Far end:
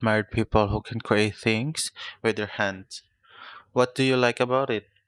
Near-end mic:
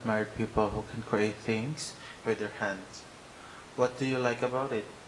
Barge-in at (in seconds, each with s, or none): none